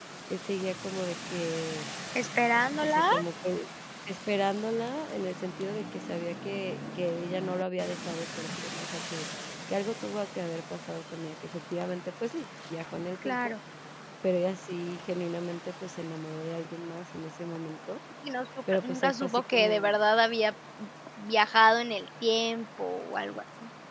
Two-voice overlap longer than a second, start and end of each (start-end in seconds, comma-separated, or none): 18.7-19.9